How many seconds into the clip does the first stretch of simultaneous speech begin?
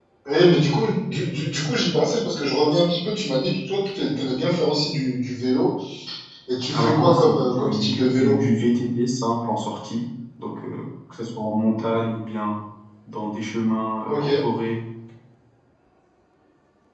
7 s

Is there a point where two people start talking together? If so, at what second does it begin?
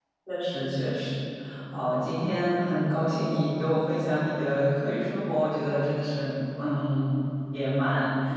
none

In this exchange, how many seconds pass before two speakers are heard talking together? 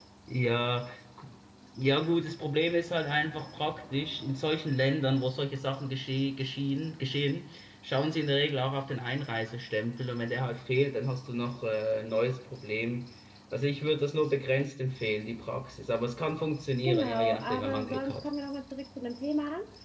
17 s

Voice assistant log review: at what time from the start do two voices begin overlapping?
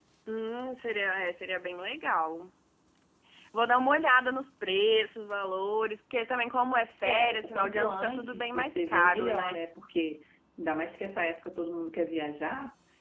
7 s

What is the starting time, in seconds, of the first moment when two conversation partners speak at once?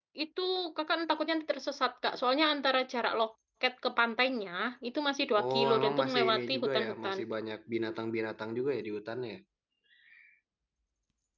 5 s

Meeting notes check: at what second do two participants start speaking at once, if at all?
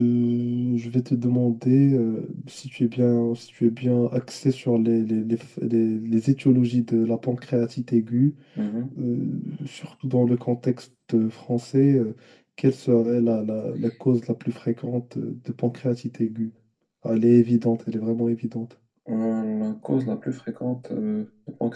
none

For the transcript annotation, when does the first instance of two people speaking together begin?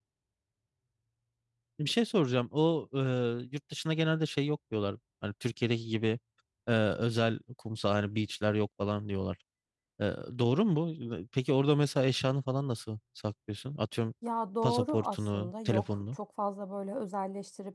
15 s

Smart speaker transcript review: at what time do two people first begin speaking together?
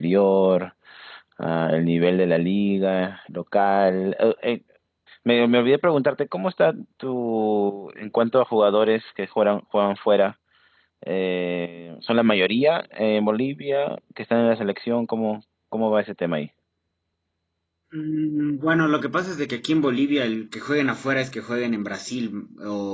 none

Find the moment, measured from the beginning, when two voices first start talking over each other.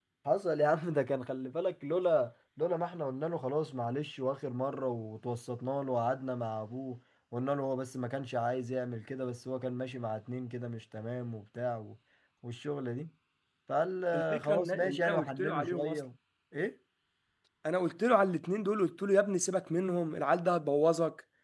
14 s

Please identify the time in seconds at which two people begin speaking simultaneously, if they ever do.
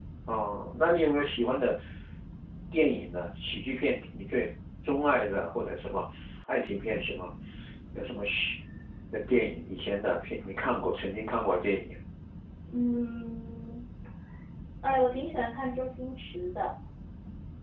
none

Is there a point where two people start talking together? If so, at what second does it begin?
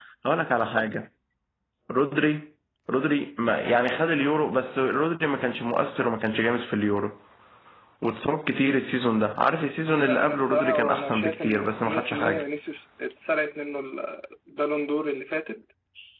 10 s

